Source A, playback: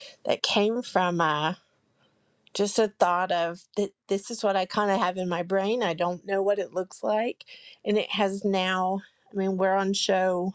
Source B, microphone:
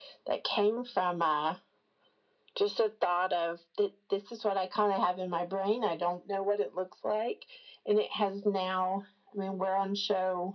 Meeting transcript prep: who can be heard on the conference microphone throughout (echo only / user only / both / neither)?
echo only